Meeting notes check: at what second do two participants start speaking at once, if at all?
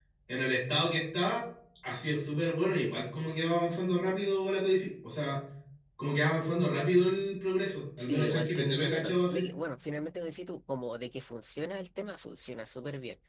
8.0 s

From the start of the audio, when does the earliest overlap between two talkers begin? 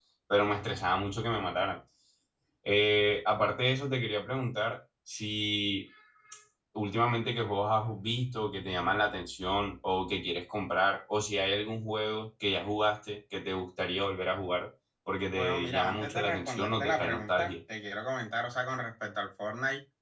15.3 s

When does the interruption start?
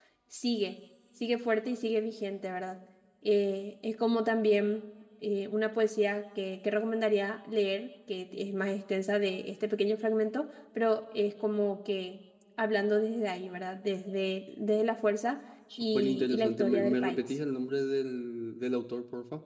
15.7 s

